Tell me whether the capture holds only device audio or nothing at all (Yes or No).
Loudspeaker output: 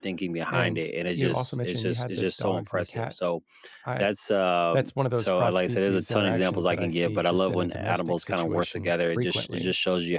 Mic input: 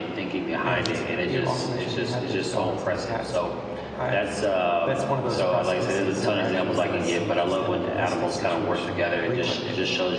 Yes